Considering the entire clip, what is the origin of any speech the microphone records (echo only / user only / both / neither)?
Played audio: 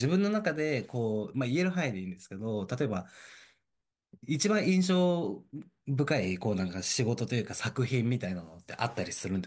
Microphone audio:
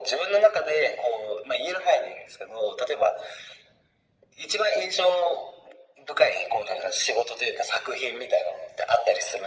echo only